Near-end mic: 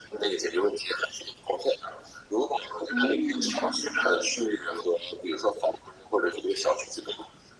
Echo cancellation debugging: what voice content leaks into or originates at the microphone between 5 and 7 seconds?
echo only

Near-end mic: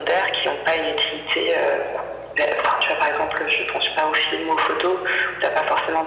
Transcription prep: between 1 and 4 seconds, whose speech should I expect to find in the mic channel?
echo only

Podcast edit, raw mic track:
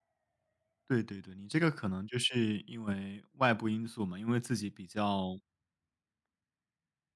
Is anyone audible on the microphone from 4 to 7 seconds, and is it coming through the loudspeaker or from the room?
user only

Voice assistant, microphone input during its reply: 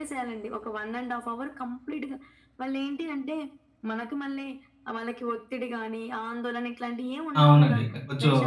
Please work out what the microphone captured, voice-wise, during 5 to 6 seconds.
echo only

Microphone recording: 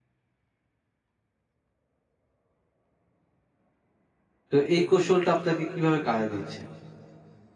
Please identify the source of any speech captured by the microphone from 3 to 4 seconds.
neither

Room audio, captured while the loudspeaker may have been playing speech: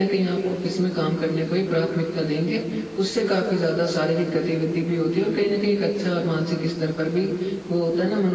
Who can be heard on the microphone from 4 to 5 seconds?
echo only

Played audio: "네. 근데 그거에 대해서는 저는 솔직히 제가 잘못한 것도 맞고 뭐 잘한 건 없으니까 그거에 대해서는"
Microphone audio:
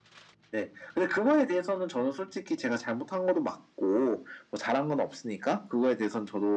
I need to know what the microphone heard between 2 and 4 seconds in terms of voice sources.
echo only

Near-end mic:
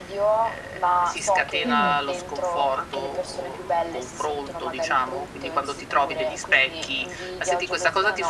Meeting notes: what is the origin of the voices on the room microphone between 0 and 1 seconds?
echo only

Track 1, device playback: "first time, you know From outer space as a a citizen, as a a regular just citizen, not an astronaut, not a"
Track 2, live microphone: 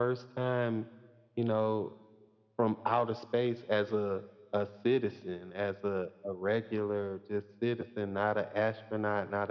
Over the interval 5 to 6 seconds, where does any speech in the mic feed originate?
echo only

